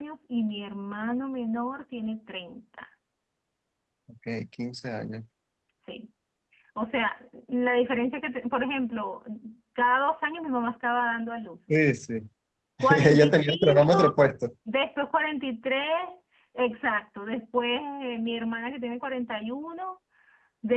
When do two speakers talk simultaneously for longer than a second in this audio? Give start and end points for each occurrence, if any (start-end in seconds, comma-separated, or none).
12.9-14.2